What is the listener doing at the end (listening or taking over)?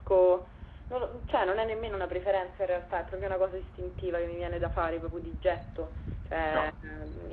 listening